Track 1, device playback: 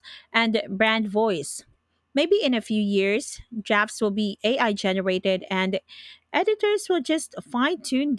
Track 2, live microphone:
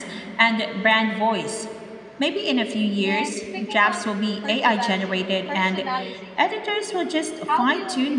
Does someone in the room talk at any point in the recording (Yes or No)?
Yes